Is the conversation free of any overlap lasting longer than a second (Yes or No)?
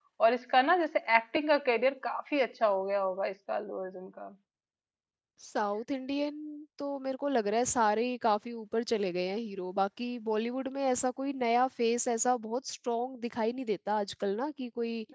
Yes